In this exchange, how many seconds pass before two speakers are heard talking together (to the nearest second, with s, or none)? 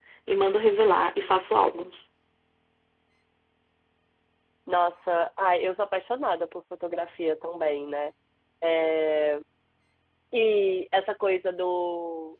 none